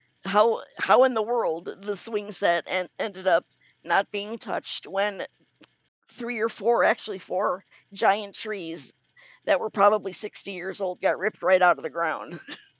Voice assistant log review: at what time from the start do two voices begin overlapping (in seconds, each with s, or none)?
none